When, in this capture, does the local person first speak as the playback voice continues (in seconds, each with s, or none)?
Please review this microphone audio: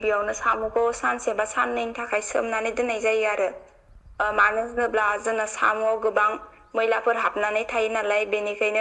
none